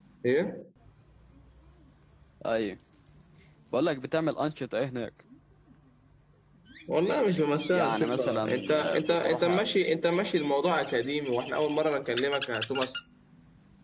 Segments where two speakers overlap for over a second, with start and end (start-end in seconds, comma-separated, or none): 7.7-9.6